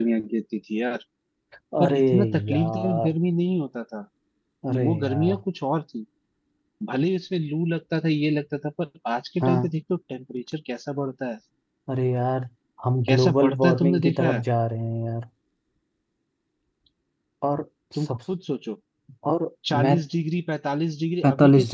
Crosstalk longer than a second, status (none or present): present